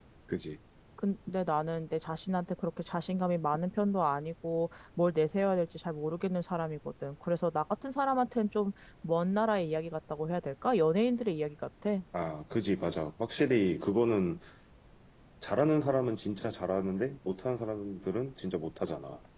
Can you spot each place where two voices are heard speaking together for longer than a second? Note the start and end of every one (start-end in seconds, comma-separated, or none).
none